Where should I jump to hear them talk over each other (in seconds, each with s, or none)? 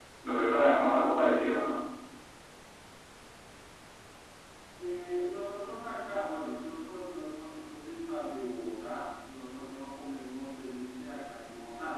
none